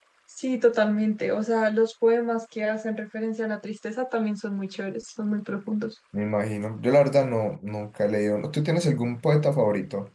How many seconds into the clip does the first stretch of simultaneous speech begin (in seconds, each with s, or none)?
none